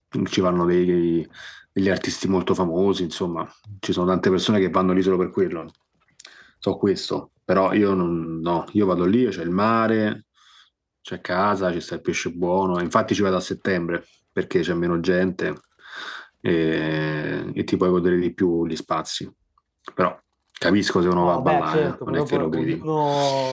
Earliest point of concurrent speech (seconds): 21.2 s

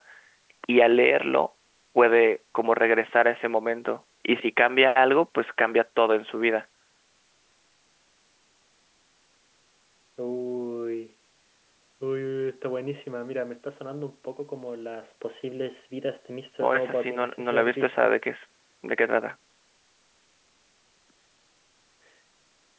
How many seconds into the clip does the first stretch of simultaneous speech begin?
16.6 s

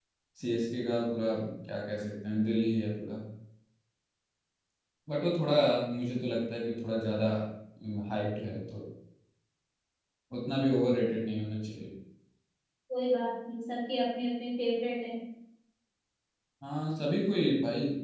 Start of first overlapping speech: none

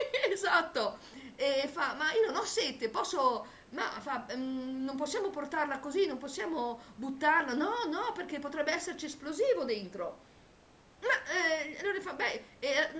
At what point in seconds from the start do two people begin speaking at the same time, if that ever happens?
none

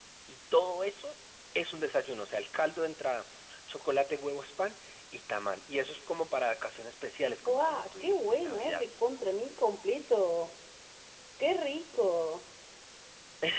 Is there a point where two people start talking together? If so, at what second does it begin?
7.5 s

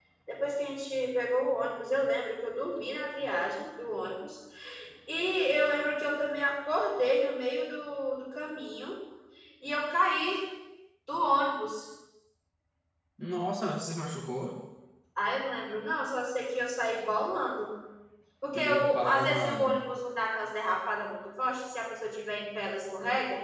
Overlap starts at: 18.6 s

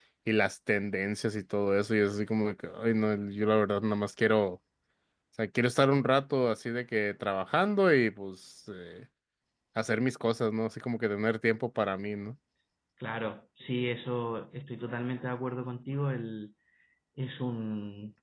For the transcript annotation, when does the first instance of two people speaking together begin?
none

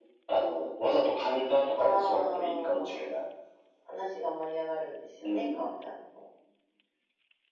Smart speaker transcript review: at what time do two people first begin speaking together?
1.8 s

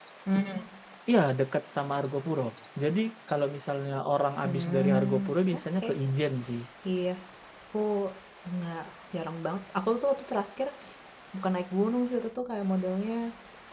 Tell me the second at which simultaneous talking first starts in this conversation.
4.4 s

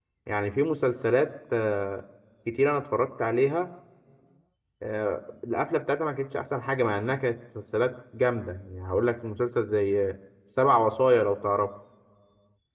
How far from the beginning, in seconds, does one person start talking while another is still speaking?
none

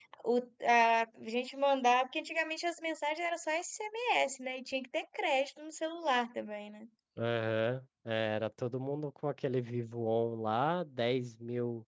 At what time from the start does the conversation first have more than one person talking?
none

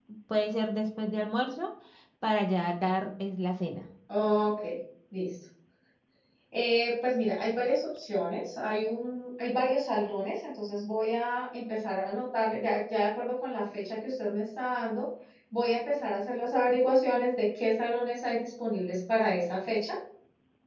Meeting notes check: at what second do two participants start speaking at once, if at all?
none

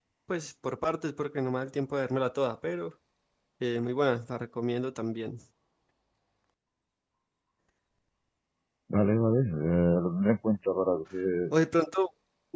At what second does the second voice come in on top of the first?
none

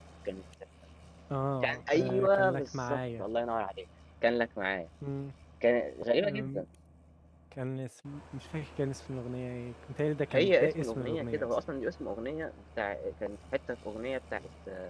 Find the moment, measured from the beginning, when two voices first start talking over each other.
1.6 s

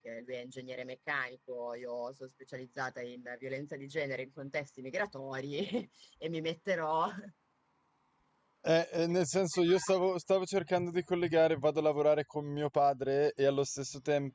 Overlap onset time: none

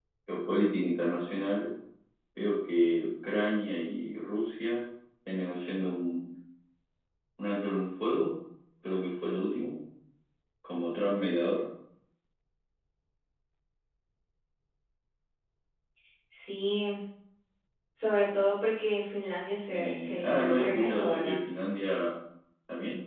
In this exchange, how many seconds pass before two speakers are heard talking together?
19.7 s

